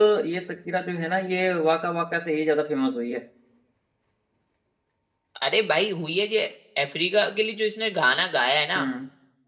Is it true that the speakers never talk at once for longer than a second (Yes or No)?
Yes